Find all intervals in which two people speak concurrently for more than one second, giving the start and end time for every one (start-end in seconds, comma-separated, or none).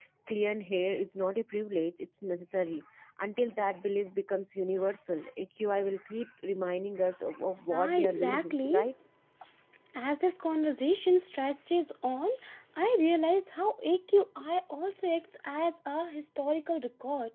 7.7-8.9